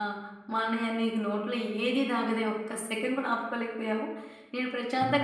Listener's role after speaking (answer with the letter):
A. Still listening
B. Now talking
A